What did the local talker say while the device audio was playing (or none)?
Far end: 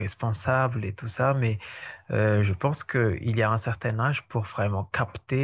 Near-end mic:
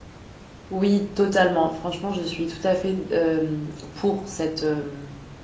Oui, totalement. Franchement, je suis tout à fait euh, pour cette, euh,